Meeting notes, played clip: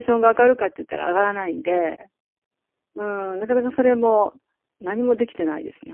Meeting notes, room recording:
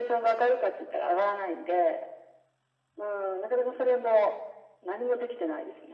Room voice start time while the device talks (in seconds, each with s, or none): none